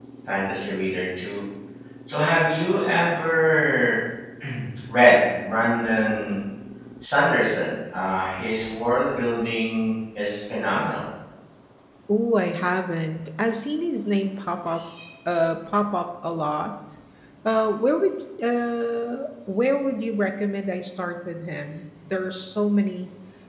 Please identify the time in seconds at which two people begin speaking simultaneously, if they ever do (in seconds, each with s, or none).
none